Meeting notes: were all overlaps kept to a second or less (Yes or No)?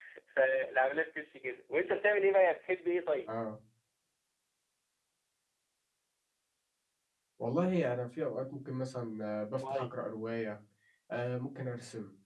Yes